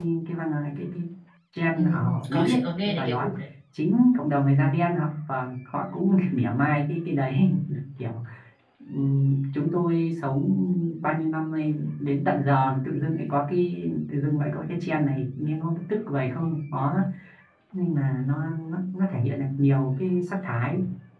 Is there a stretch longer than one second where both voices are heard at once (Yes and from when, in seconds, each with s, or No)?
Yes, from 1.8 s